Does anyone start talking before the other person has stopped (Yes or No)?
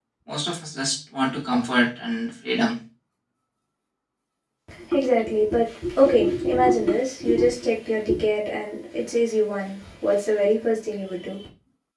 No